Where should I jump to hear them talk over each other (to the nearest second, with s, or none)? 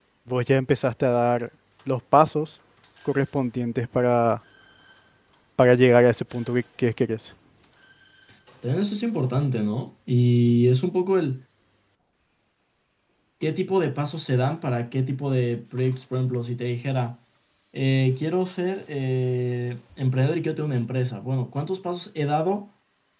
none